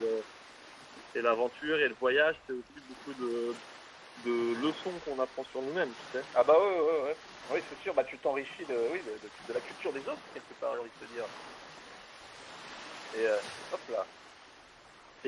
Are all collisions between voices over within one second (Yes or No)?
Yes